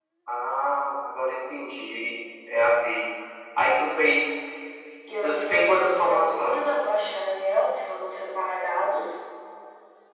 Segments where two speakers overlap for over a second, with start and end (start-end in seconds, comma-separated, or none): 5.2-6.6